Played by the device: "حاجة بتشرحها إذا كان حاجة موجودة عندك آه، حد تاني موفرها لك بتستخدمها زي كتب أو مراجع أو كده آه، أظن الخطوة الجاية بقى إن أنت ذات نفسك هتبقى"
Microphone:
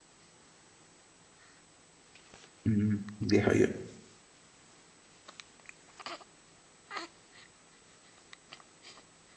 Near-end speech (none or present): present